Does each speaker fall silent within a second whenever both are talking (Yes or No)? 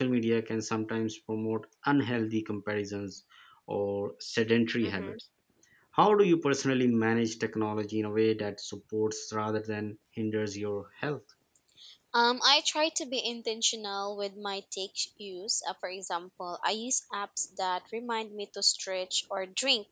Yes